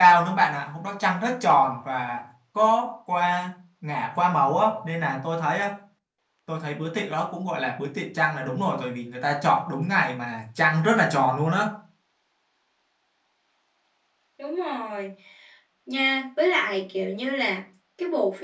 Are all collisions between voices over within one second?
Yes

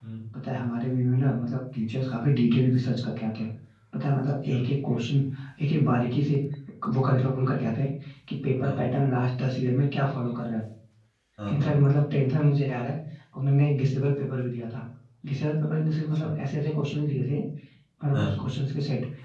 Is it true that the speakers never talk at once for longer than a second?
Yes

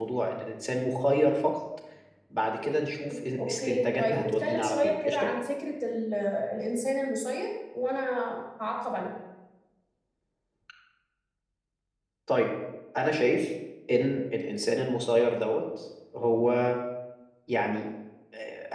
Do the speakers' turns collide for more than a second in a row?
Yes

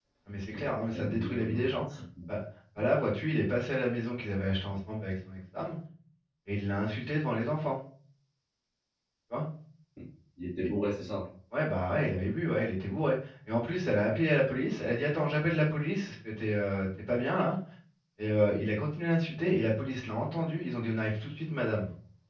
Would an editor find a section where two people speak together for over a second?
Yes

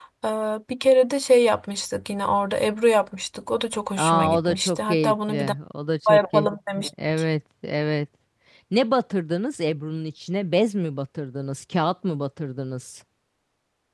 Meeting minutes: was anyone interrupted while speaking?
Yes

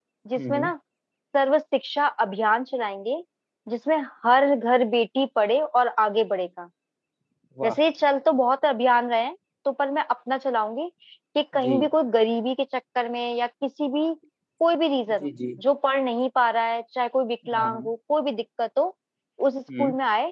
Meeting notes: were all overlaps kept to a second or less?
Yes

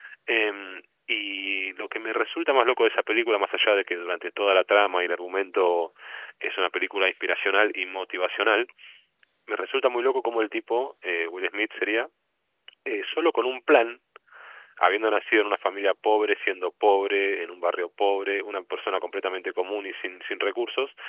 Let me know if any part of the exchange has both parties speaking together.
No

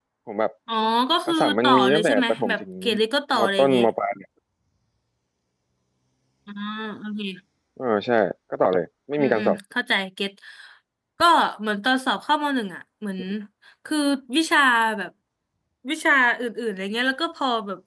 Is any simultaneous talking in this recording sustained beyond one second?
Yes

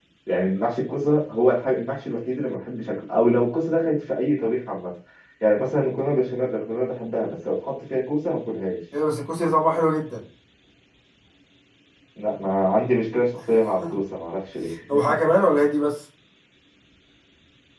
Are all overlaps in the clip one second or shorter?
Yes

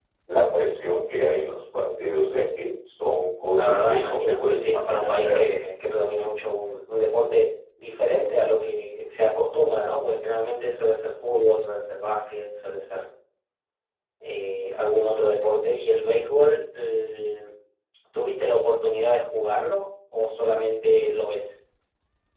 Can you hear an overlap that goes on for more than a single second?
Yes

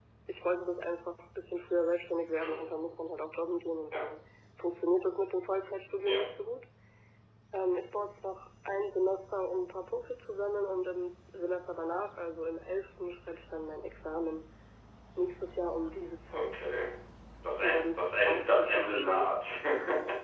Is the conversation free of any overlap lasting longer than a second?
No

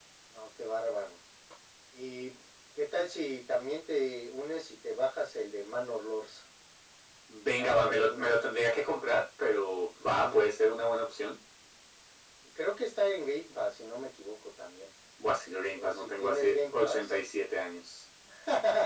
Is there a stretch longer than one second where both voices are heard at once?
Yes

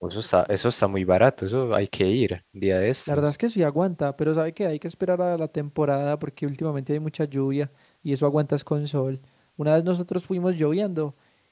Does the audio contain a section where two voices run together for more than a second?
No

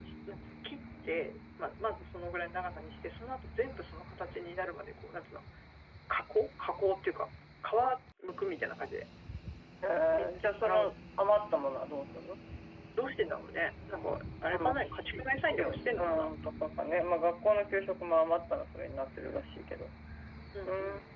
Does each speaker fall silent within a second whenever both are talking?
No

